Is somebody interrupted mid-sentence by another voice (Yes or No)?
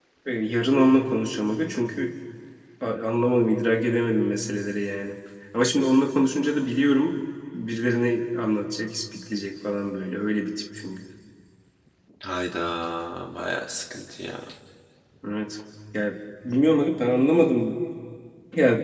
No